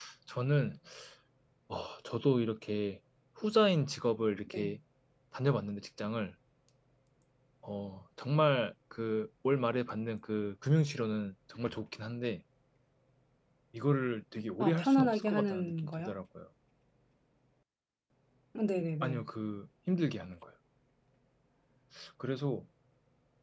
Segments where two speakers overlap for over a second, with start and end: 14.6-16.2

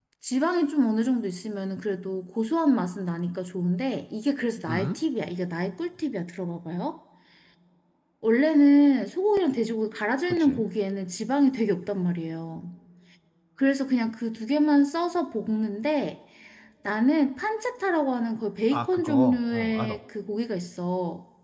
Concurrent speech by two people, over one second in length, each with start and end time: 18.7-20.0

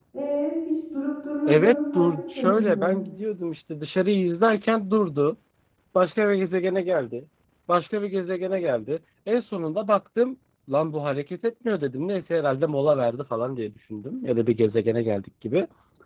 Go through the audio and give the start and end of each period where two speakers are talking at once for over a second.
1.5-3.0

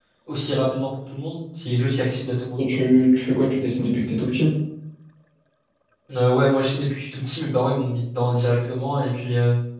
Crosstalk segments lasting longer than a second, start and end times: none

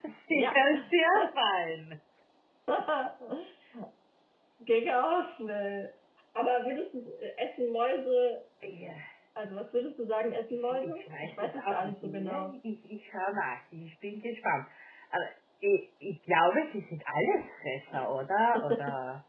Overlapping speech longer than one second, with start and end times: 10.5-12.5

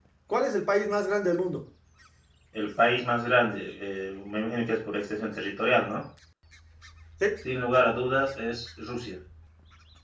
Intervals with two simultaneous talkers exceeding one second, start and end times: none

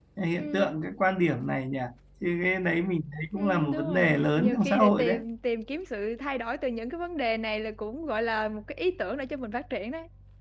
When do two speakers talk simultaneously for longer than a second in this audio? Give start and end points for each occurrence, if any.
3.4-5.2

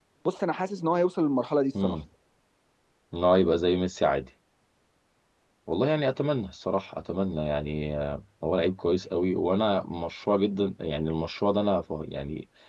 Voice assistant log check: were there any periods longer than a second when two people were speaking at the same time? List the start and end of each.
none

